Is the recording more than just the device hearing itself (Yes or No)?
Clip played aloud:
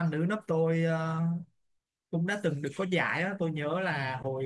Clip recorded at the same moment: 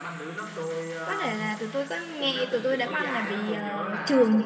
Yes